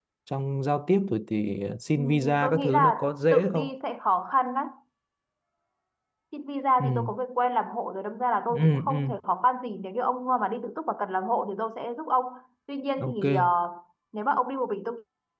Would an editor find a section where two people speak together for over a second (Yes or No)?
Yes